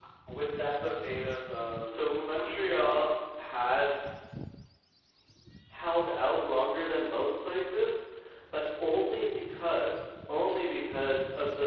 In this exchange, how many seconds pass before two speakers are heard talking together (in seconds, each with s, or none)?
1.8 s